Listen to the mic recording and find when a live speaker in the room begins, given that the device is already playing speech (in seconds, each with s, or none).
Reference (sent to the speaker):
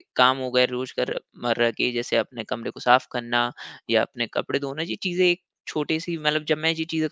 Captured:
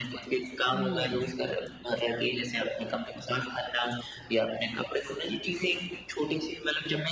0.7 s